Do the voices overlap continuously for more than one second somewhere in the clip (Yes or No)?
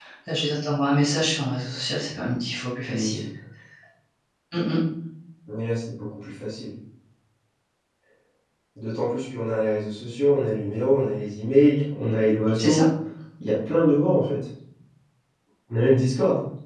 No